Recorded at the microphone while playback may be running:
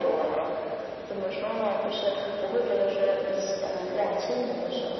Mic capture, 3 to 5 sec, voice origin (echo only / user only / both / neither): echo only